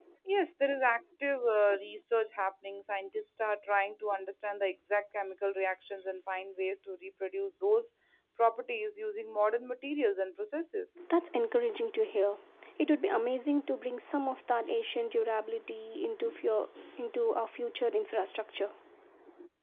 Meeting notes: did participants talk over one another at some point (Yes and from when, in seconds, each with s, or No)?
No